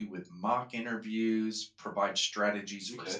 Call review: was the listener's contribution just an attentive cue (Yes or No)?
Yes